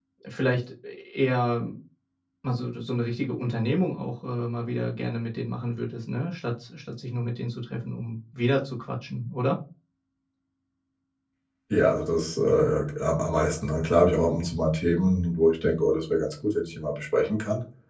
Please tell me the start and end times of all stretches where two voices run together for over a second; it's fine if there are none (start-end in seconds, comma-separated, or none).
none